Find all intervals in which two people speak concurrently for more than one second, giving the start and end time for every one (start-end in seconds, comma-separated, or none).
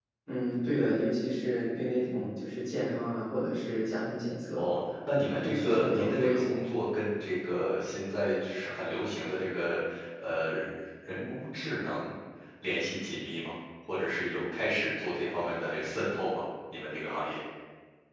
5.3-6.6